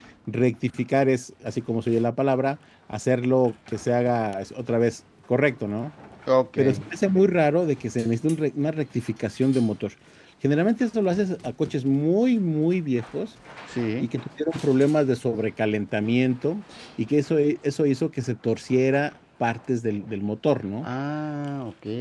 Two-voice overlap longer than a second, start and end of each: none

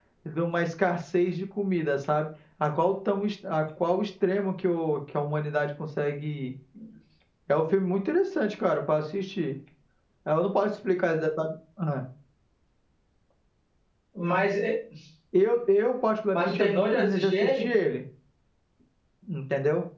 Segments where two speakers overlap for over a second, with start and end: 16.3-17.7

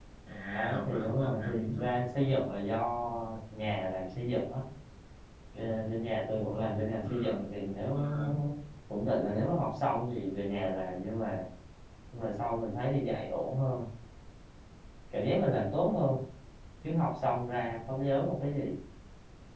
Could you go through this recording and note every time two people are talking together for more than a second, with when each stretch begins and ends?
0.5-1.9

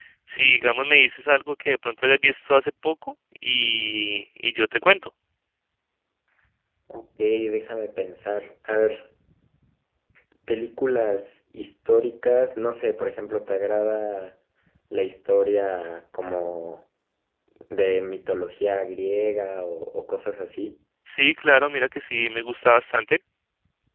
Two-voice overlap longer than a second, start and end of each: none

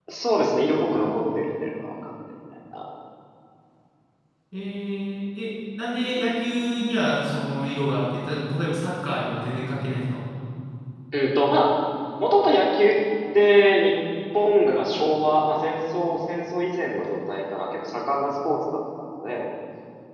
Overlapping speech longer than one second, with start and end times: none

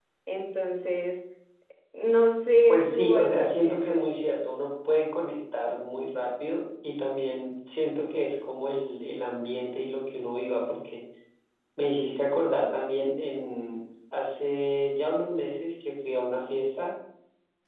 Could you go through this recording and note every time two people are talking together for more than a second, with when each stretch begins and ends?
2.7-4.0

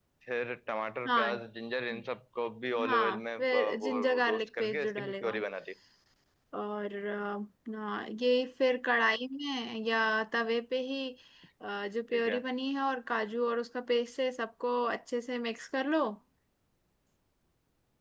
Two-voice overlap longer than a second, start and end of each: 2.8-5.3

